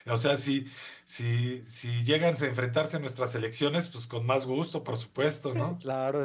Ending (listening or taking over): taking over